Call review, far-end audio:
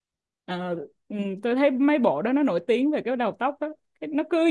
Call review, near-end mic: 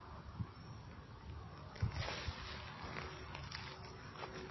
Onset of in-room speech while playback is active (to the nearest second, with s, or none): none